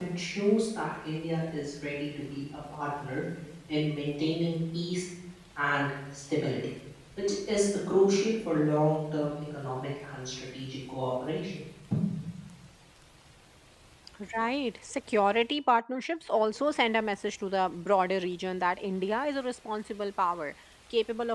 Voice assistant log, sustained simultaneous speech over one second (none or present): none